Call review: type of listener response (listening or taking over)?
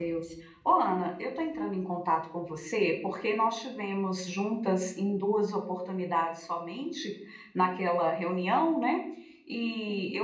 listening